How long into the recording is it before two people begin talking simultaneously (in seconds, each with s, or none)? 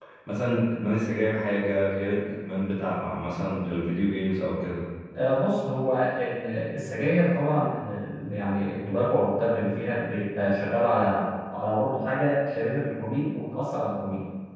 none